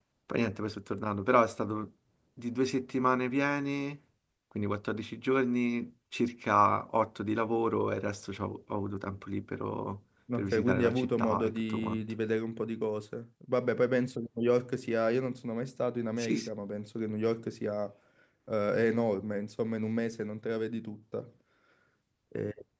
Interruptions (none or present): present